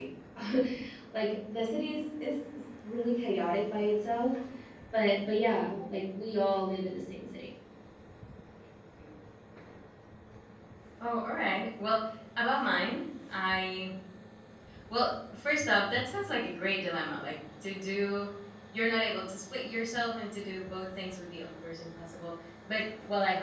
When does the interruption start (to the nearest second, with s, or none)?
none